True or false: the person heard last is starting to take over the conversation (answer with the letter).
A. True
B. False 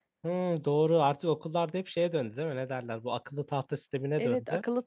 A